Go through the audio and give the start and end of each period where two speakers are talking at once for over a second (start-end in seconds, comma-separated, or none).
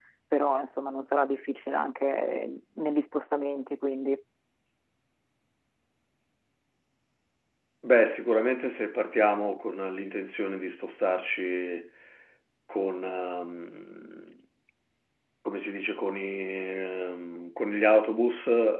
none